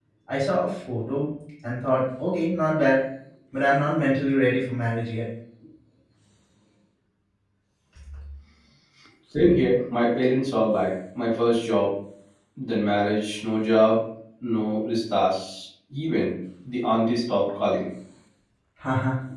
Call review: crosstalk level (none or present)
none